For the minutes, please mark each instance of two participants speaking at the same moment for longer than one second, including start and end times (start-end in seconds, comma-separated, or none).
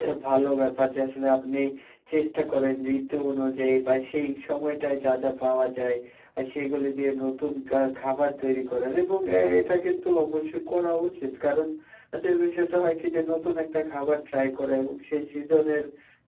none